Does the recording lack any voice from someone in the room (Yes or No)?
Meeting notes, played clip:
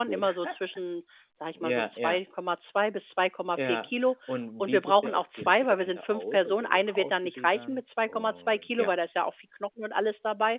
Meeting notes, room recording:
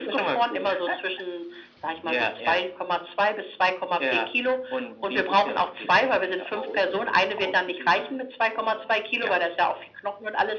Yes